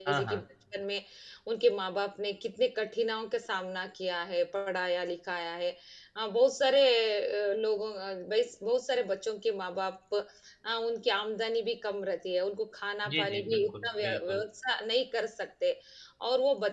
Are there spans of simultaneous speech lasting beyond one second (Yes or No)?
Yes